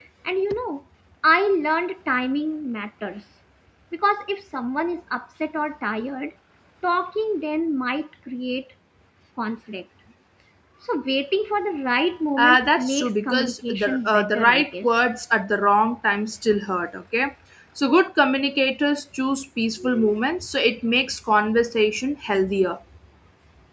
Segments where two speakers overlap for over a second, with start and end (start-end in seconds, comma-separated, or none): 12.4-14.9